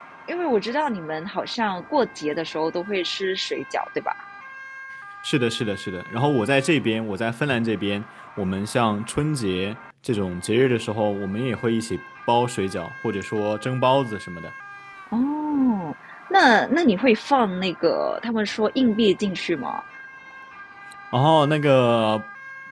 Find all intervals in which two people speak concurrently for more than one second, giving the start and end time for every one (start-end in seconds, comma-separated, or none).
none